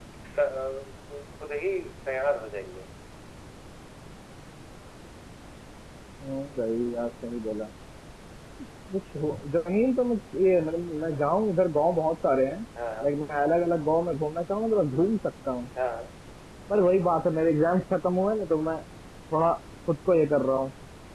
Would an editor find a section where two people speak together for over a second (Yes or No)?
No